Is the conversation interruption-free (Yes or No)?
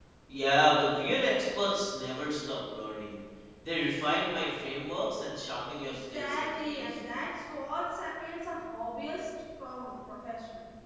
No